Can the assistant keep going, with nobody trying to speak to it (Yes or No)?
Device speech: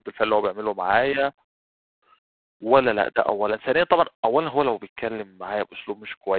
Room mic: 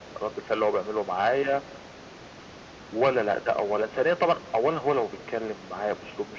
Yes